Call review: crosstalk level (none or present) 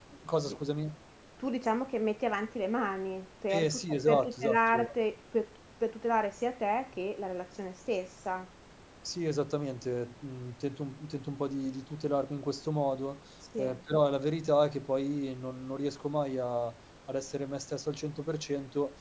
present